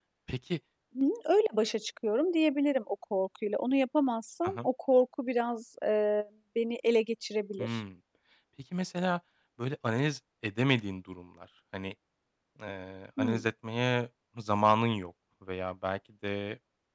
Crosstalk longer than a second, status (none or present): none